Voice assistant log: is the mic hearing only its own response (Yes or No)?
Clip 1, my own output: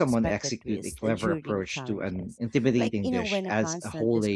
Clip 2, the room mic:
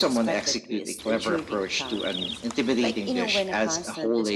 Yes